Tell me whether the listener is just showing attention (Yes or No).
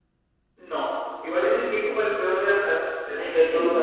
No